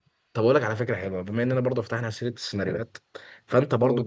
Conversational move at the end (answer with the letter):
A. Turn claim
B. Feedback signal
B